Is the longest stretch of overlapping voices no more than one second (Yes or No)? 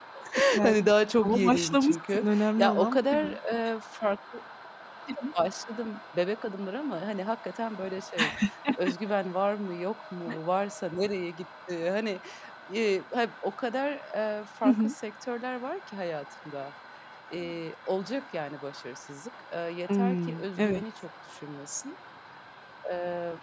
No